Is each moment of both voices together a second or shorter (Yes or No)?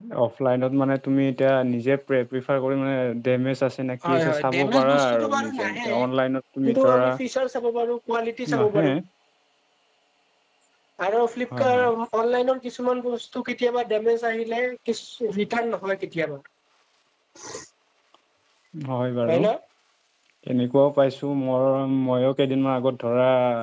No